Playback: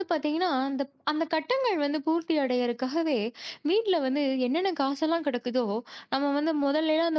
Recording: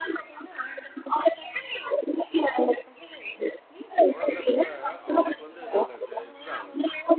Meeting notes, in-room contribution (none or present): present